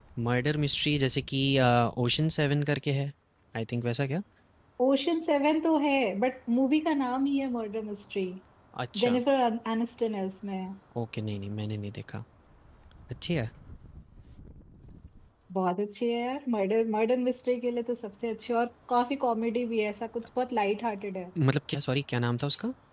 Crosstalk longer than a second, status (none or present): none